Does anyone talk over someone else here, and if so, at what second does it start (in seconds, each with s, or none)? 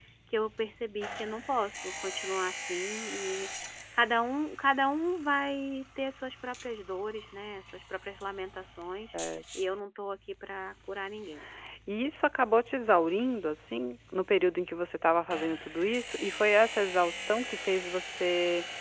none